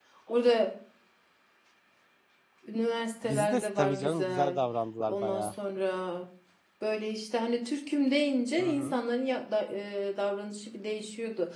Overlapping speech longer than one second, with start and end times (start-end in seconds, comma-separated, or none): 3.2-4.6